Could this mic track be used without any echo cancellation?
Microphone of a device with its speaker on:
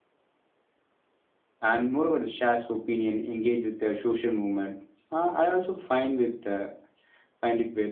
Yes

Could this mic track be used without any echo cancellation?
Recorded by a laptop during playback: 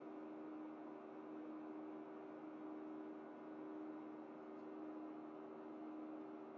Yes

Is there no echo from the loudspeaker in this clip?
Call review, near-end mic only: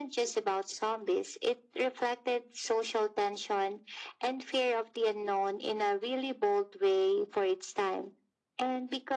No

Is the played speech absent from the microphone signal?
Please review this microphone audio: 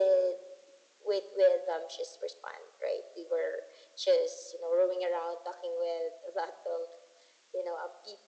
No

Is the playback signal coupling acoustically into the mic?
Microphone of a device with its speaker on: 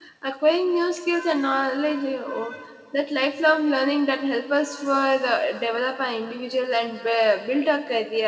No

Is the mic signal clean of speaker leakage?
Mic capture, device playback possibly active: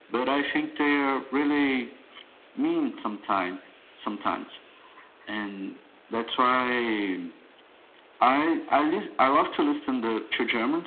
No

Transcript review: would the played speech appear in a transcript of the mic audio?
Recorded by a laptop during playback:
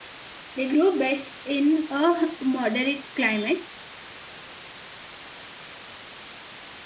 No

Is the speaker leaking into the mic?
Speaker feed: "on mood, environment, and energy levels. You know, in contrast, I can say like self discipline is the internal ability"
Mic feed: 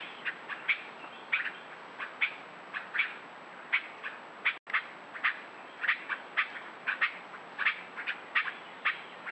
No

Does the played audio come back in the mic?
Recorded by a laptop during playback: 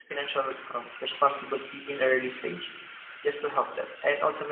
No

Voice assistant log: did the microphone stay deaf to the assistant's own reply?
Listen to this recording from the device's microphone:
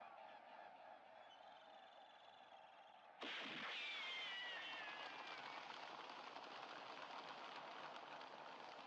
Yes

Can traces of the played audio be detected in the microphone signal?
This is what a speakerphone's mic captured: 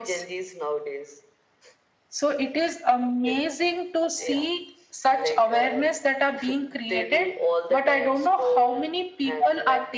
Yes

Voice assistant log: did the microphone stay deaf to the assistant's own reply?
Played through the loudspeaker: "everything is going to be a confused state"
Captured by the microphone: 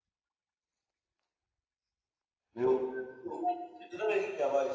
Yes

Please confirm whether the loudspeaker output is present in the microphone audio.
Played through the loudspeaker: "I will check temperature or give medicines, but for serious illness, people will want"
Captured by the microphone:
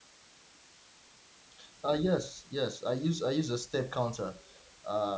No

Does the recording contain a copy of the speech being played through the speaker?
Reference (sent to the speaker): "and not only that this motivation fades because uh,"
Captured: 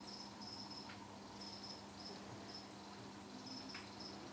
No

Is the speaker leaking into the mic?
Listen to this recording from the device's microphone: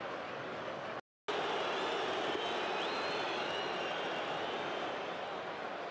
No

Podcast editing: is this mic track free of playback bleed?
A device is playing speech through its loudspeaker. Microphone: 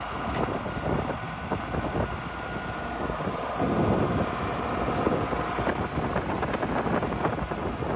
Yes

